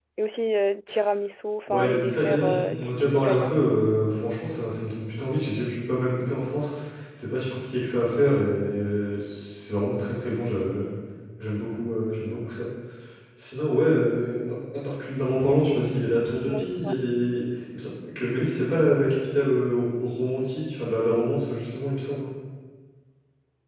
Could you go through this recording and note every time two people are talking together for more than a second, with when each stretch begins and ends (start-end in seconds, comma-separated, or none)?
1.7-3.5